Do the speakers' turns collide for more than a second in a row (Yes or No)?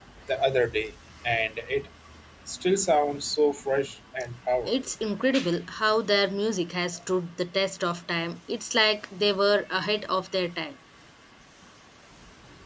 No